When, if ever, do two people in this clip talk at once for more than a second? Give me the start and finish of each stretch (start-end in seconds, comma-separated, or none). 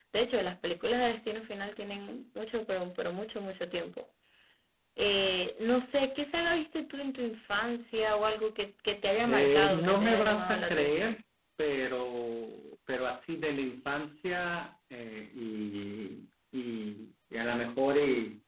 9.2-11.1